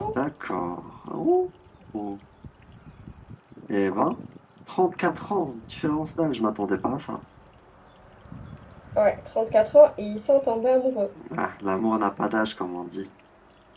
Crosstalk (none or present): none